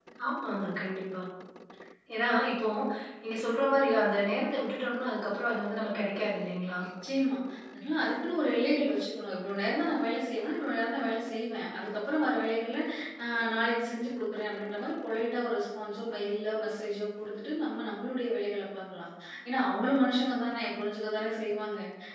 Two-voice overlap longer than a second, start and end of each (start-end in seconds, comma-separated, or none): none